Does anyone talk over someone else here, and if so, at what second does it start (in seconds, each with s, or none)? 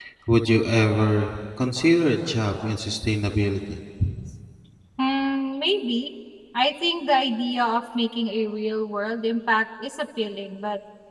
none